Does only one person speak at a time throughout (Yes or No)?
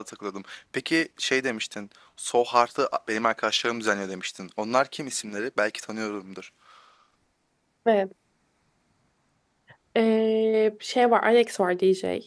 Yes